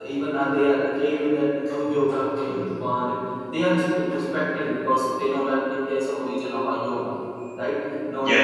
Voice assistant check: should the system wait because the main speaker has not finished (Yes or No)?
Yes